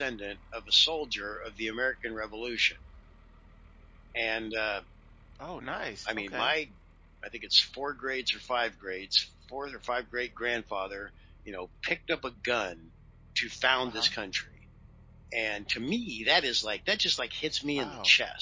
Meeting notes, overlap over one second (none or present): none